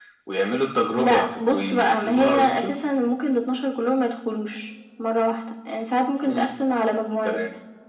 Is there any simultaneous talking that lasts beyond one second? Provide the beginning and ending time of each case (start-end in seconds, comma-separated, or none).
1.0-2.7